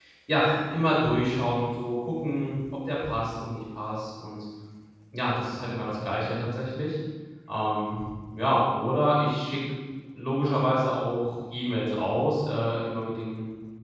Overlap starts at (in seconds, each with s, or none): none